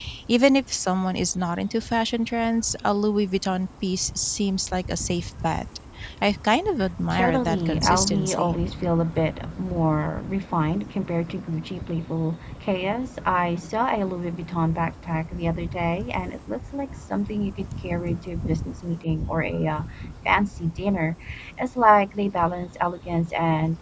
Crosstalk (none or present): present